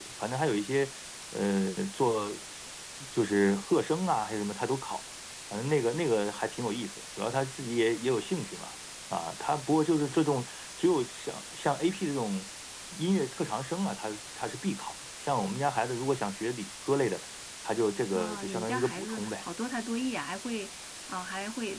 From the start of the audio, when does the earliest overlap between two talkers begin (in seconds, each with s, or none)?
18.2 s